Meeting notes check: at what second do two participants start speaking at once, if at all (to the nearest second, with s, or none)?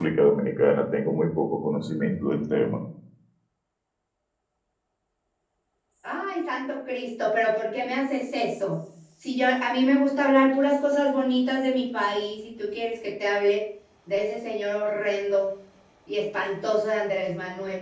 none